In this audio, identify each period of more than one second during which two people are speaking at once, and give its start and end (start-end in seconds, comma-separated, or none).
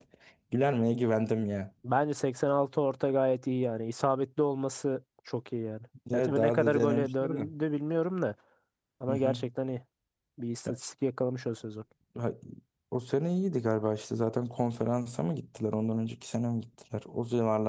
6.1-7.5